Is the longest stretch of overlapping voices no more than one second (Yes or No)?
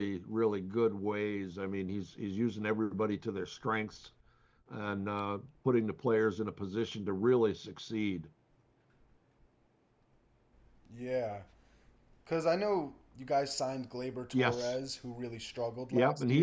Yes